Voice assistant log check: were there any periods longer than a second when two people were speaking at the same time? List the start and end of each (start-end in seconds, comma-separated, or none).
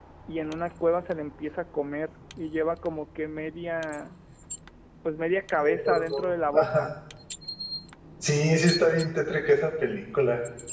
5.6-6.9